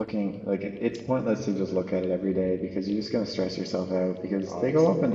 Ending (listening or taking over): listening